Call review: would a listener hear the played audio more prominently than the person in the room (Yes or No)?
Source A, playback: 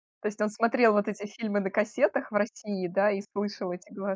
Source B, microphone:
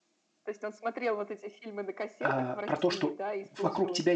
No